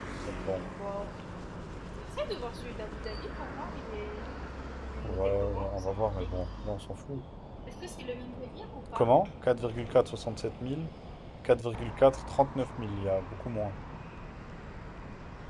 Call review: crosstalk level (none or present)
present